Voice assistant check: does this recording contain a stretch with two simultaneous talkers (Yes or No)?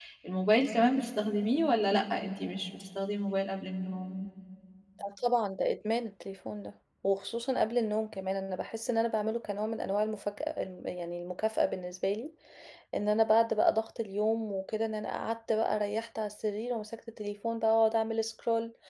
No